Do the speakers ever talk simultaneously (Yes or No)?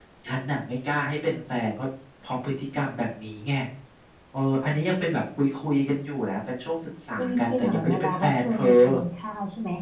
Yes